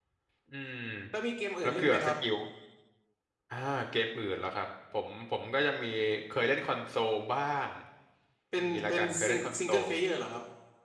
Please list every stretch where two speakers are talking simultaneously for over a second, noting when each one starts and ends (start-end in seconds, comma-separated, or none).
8.6-9.8